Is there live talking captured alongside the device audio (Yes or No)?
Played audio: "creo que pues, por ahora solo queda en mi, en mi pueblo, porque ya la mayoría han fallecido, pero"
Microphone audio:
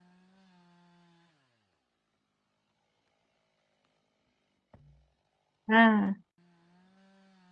Yes